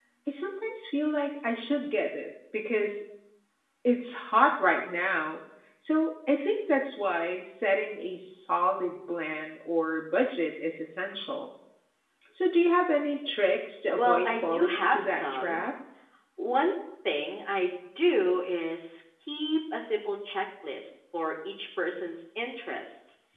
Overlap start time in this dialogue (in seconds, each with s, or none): 14.0 s